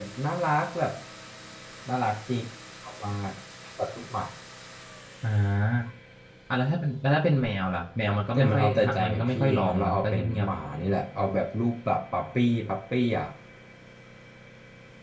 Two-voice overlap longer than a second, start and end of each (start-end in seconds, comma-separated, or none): 8.3-10.5